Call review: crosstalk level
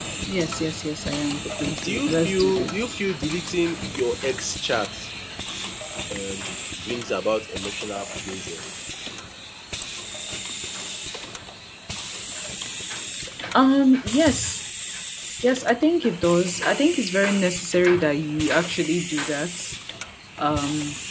present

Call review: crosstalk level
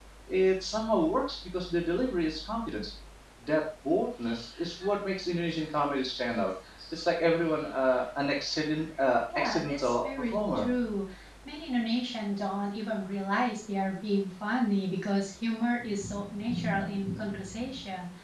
present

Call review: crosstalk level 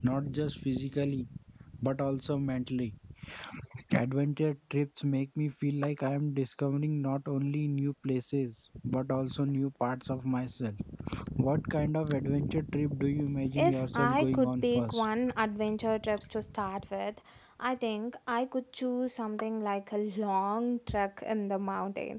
present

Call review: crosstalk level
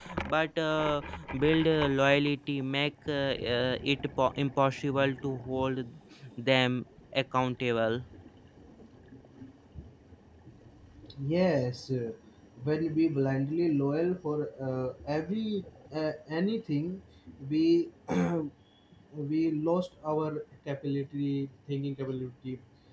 none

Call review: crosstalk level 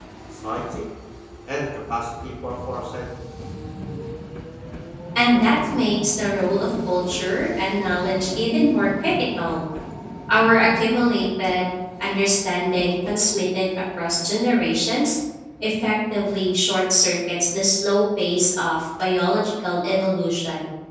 none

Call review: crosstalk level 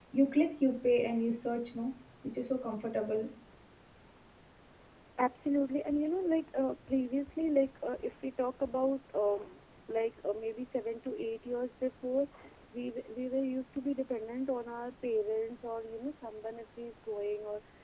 none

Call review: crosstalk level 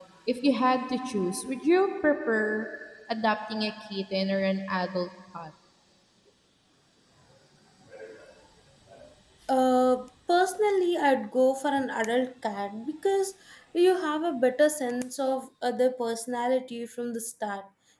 none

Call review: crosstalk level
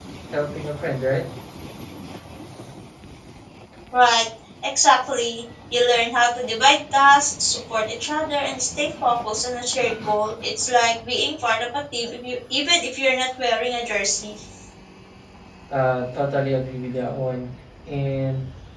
none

